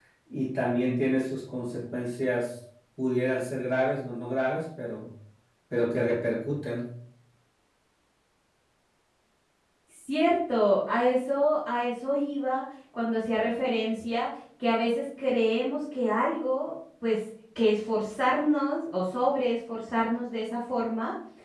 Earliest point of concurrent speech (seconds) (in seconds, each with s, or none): none